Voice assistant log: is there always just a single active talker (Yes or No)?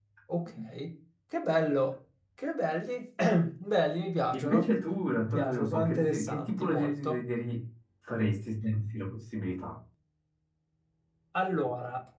No